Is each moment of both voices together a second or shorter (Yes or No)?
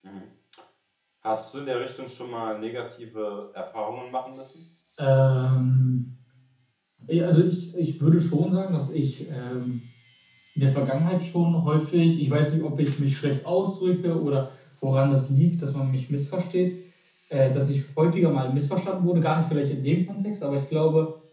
Yes